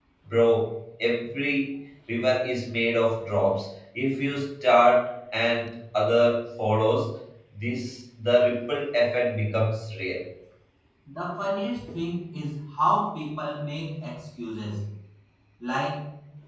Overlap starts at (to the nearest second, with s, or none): none